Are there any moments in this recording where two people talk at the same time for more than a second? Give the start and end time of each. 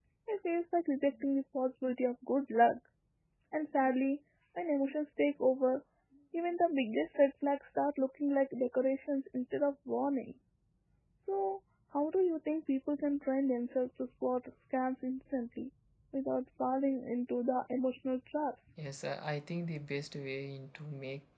none

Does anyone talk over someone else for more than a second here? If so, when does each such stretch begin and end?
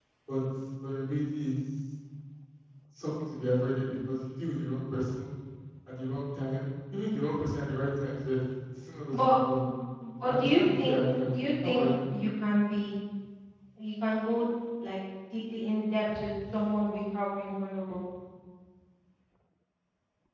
10.2-11.8

